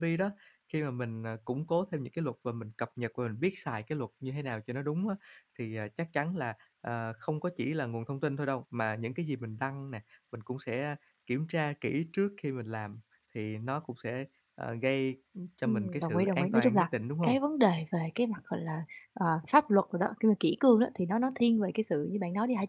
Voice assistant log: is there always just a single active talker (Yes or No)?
No